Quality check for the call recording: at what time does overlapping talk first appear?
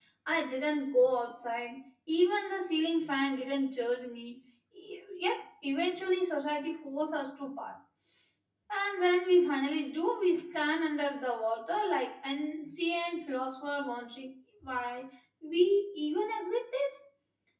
none

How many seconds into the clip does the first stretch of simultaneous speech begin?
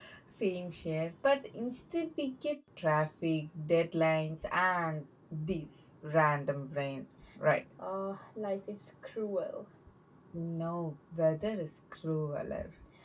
none

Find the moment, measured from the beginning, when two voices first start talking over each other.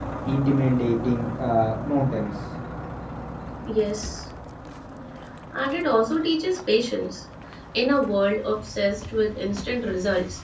none

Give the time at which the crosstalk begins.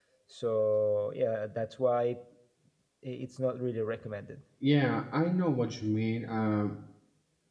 none

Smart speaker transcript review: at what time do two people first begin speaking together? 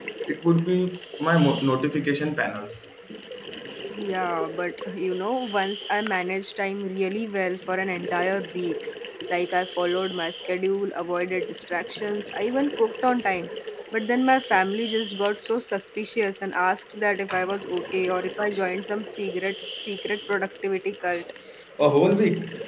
none

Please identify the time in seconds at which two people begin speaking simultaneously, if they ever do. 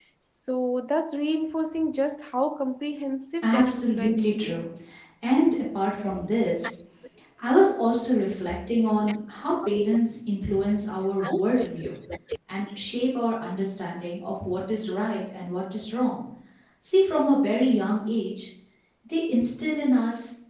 3.4 s

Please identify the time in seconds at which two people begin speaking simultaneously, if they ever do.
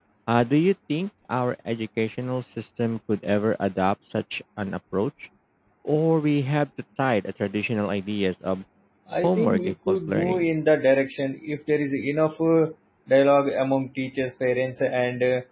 9.2 s

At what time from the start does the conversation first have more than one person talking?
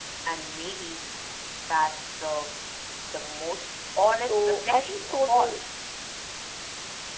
4.1 s

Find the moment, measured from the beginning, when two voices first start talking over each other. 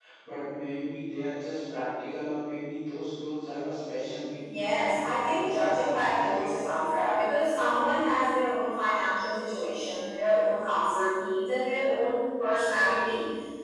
4.4 s

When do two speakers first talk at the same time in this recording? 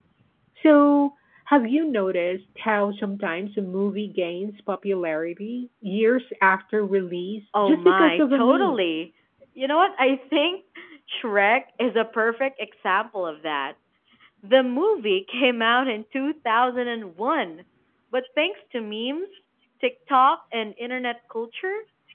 7.5 s

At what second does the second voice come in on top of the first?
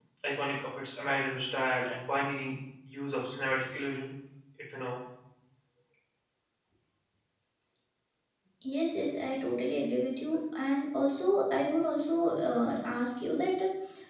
none

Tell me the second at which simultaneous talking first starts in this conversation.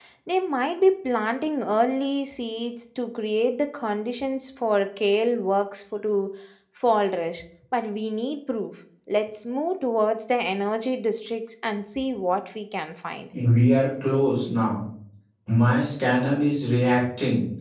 none

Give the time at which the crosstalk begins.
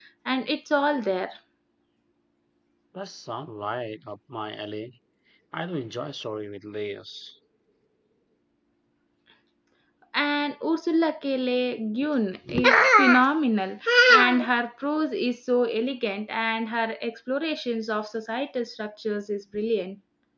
none

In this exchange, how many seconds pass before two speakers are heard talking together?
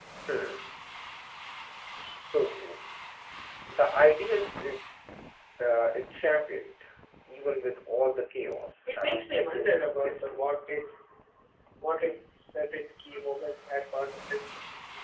8.9 s

